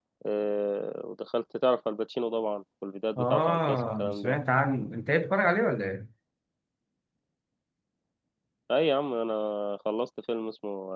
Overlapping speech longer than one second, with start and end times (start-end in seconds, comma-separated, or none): 3.2-4.4